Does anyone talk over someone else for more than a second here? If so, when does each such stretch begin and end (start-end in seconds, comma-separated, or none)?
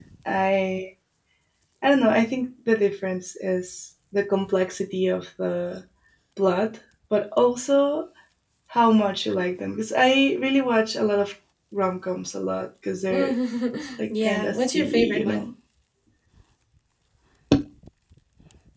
14.2-15.4